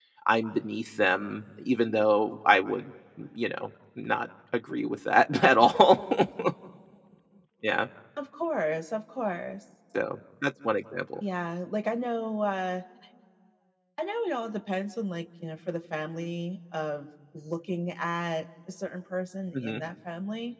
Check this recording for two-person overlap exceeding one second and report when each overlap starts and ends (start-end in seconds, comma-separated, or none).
none